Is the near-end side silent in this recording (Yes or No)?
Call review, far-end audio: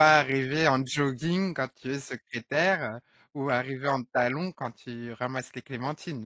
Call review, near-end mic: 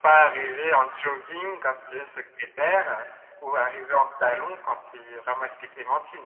Yes